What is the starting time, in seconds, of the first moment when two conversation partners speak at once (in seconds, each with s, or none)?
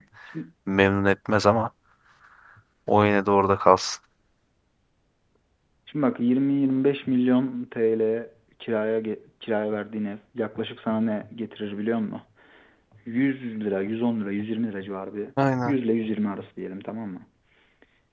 none